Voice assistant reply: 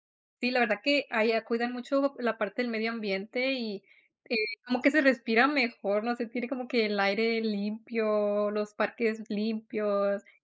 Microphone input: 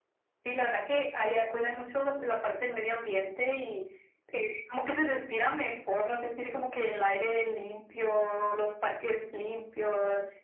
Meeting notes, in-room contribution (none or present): none